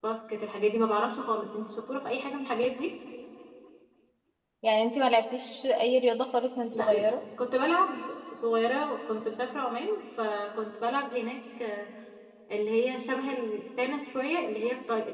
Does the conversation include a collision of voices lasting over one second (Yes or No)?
No